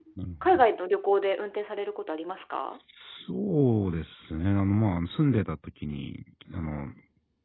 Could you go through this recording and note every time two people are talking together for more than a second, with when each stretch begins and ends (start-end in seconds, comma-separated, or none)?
none